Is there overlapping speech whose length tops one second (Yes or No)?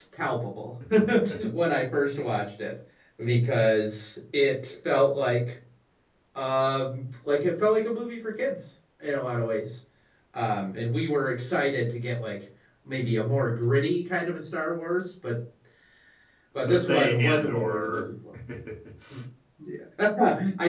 Yes